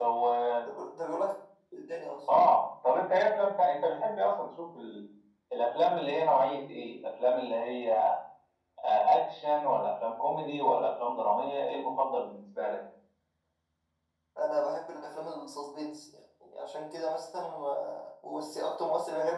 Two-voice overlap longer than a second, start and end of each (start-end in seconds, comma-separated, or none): none